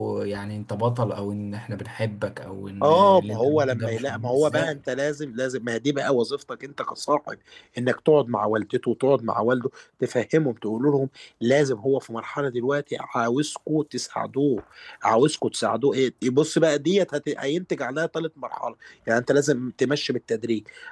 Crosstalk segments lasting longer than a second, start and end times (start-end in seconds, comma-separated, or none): 2.8-4.7